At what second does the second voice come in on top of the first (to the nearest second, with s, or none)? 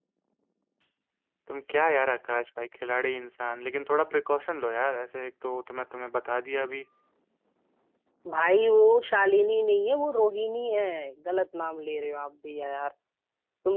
none